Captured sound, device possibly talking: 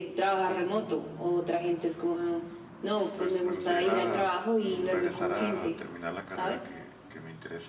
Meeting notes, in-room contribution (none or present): present